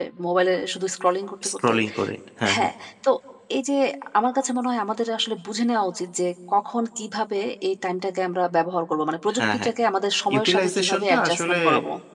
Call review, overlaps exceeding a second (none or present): present